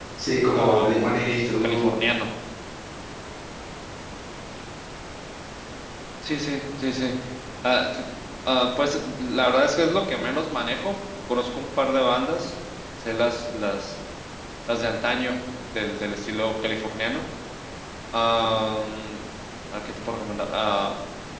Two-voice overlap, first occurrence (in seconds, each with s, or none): 0.5 s